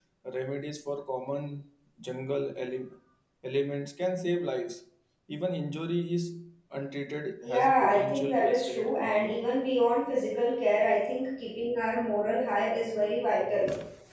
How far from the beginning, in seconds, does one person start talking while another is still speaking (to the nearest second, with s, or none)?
7 s